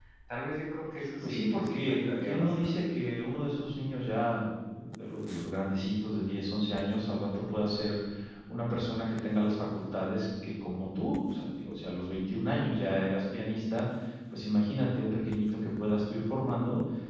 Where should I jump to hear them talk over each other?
1.2 s

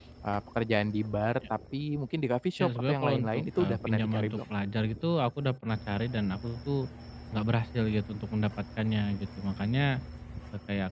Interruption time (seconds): 2.6 s

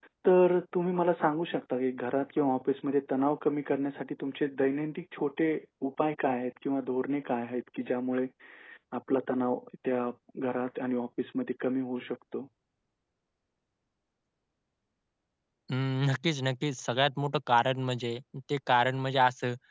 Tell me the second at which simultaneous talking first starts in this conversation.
none

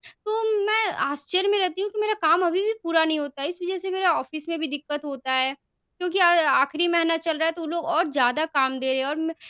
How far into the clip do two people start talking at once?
none

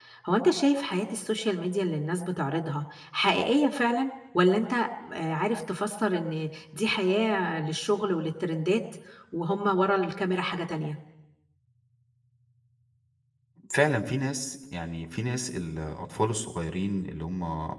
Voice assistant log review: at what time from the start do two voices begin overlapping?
none

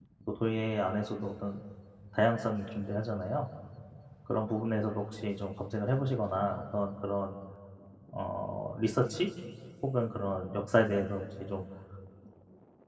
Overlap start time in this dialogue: none

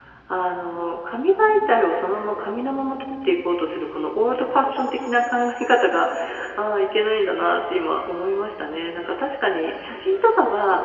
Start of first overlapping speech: none

